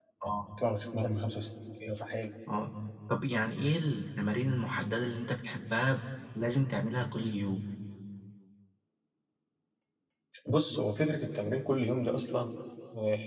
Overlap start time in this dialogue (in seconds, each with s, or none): none